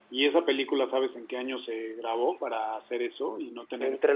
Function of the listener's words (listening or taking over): taking over